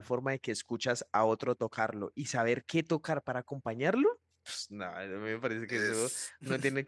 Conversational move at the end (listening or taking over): listening